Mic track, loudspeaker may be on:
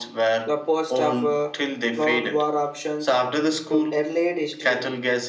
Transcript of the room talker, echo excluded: the post of uh, cloud war options to earlier history

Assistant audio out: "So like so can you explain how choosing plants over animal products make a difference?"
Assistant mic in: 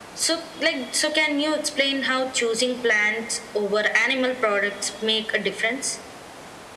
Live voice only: none

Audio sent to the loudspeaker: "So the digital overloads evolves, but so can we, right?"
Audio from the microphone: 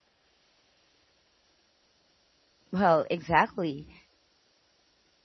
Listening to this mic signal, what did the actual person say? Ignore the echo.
Well, exactly.

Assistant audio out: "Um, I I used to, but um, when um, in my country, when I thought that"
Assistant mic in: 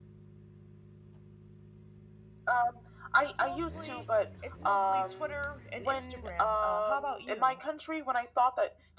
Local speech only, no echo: it's mostly it's mostly Twitter and Instagram. Uh, how about you?

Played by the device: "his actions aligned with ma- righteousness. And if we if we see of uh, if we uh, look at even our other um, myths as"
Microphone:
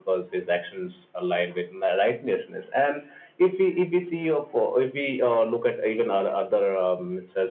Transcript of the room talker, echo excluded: none

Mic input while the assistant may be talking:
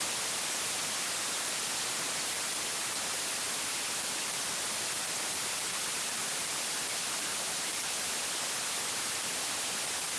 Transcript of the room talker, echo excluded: none

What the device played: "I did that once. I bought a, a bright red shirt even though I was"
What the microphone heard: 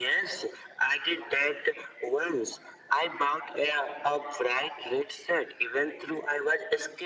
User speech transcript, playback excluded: none

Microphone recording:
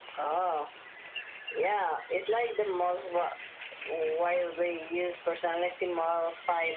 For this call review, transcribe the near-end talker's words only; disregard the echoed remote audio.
none

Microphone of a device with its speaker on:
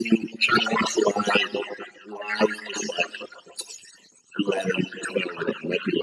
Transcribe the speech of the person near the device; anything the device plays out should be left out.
none

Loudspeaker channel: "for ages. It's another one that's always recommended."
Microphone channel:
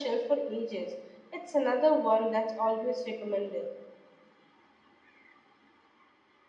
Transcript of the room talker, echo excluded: none

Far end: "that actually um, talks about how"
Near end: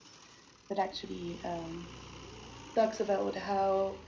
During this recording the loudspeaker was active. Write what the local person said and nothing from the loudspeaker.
none

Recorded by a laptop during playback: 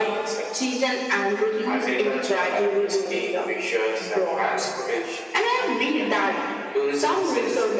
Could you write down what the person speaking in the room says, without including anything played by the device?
none

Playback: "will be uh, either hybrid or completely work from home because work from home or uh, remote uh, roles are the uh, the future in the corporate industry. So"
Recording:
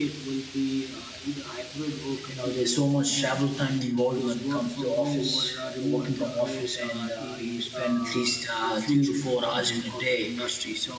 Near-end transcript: You know, there's so much travel time involved when it comes to office uh, working from office and uh, you spend at least uh, three to four hours in a day

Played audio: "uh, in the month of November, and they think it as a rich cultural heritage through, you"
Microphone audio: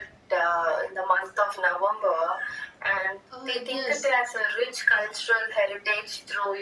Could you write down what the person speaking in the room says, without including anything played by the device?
Uh, yes,

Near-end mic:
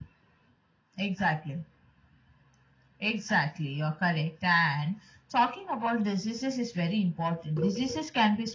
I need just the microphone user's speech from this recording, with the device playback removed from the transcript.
none

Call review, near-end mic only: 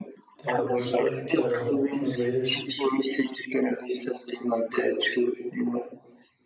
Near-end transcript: that work like uh, translators

